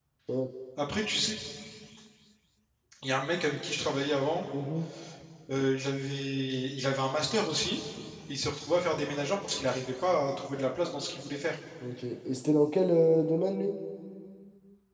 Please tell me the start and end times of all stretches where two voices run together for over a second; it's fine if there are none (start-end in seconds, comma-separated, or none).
none